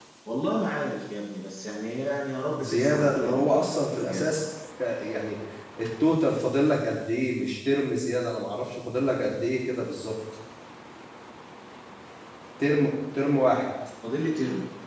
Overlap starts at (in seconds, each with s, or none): 2.6 s